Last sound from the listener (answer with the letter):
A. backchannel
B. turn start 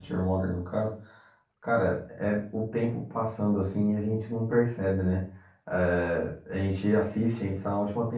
A